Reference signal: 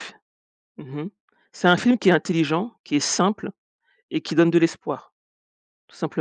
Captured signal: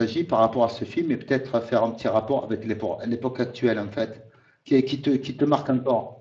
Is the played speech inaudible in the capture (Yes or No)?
Yes